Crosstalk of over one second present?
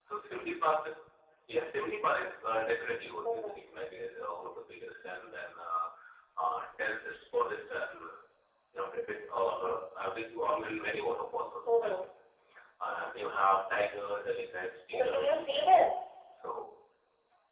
No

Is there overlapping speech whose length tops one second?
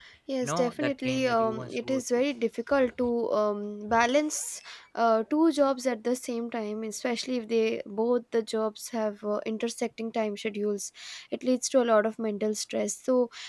Yes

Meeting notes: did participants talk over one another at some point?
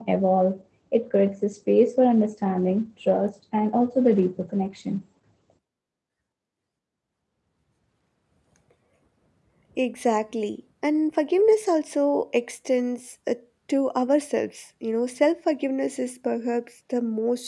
No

